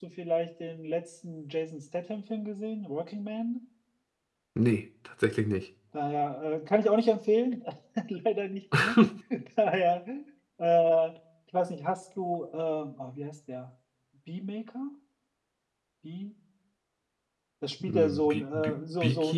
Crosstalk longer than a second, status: present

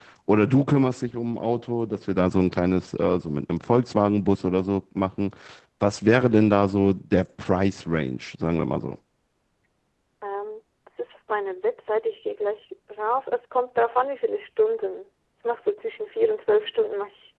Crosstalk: none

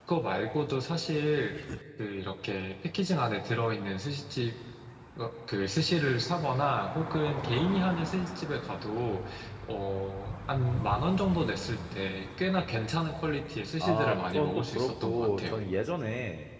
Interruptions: present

